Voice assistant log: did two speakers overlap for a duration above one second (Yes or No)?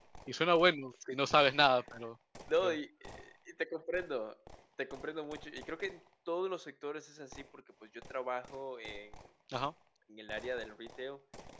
No